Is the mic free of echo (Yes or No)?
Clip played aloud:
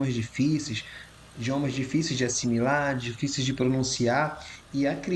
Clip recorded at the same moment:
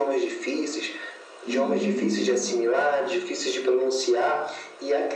No